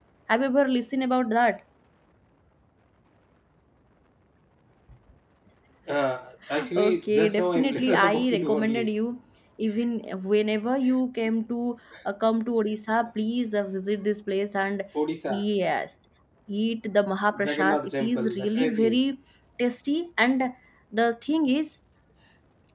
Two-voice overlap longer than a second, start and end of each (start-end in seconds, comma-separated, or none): 6.8-8.9, 17.4-19.0